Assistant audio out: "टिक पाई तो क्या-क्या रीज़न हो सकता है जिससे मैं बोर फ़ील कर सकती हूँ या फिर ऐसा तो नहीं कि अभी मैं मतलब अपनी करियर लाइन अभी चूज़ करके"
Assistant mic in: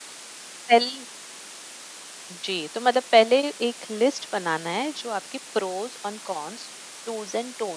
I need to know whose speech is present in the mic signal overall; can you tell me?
user only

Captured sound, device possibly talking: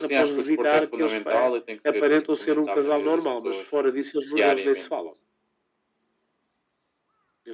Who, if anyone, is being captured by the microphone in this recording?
echo only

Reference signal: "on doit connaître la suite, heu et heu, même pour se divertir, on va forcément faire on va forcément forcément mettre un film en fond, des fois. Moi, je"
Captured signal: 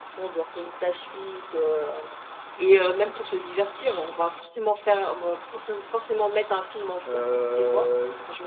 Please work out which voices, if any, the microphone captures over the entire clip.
both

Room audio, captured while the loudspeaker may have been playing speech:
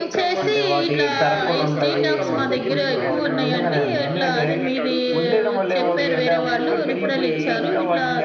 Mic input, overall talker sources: both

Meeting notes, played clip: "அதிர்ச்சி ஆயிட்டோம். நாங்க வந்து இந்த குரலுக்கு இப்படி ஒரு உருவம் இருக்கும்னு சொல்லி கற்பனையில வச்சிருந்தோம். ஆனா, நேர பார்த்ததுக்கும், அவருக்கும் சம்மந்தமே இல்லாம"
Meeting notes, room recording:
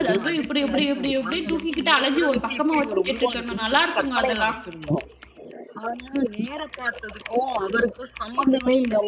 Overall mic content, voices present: both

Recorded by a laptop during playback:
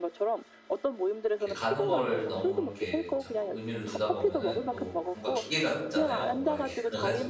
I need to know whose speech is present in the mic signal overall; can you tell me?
both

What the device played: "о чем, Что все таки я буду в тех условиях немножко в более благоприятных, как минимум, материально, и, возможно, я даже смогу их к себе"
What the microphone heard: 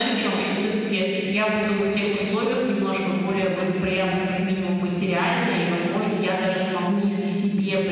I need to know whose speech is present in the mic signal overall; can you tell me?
both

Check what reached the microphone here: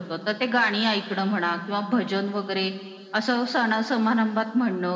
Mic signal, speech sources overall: echo only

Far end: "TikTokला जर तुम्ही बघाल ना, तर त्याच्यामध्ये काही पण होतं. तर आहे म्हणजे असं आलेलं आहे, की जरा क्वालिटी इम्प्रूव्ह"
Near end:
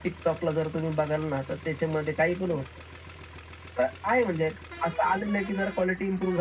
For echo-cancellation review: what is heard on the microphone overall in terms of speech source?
echo only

